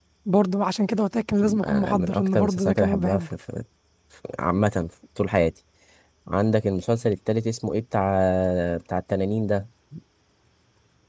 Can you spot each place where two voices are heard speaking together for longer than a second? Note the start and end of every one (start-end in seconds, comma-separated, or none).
1.6-3.3